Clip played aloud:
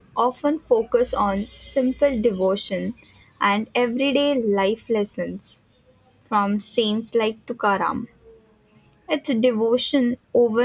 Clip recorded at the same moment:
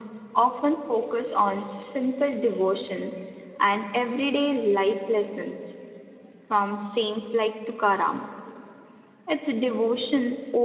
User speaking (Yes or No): No